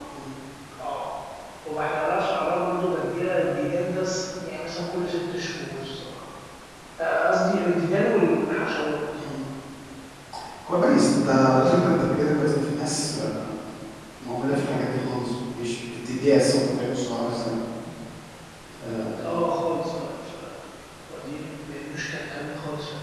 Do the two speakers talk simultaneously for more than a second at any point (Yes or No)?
No